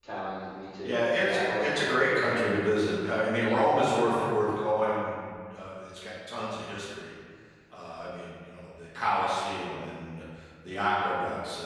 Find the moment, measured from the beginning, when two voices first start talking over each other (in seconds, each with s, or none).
0.8 s